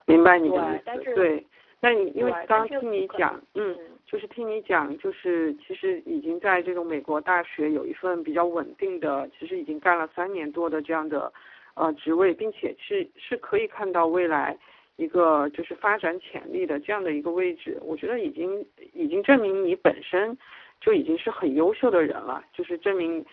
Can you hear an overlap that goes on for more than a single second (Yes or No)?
Yes